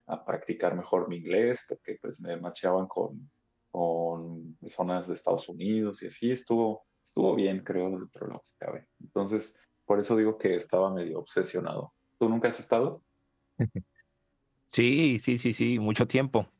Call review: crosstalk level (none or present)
none